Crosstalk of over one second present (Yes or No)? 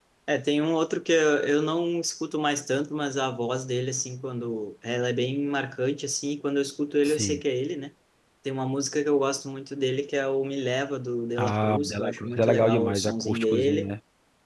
Yes